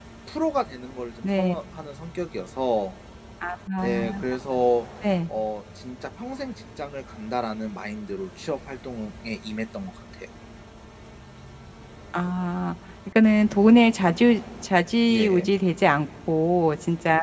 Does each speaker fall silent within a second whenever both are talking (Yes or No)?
Yes